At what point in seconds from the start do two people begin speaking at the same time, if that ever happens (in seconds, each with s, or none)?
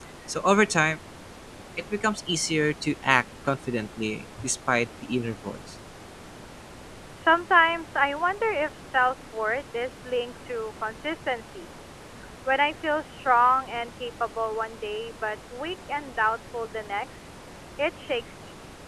none